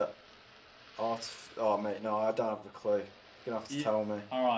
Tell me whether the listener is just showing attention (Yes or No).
No